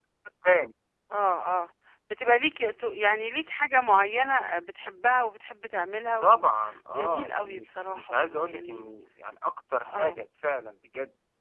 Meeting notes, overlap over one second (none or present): present